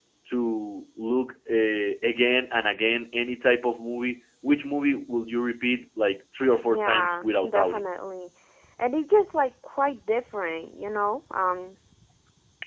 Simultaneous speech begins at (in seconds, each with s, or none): 6.6 s